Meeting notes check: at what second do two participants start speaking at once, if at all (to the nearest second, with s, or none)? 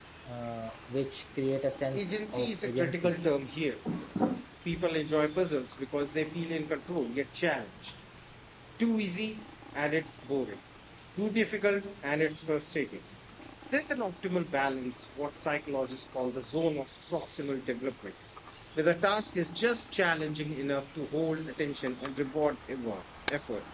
2 s